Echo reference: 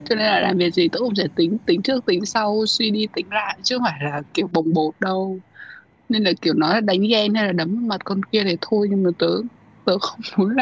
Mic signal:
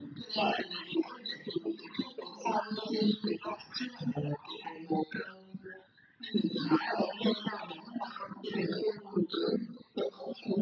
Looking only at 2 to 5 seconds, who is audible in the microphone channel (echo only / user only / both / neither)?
echo only